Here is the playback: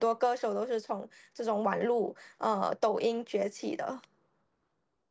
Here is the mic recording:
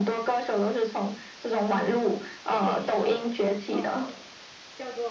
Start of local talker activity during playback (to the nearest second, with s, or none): 2 s